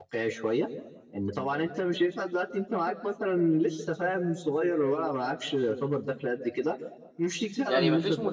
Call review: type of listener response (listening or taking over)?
taking over